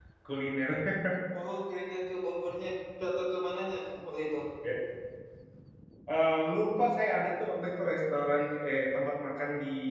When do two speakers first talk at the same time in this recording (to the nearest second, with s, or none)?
none